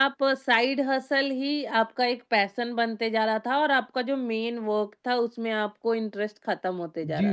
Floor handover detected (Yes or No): Yes